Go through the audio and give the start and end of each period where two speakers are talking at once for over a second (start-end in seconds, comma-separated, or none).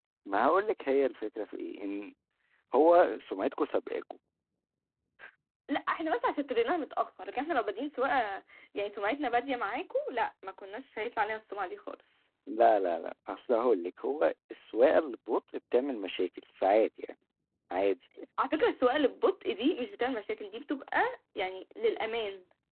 none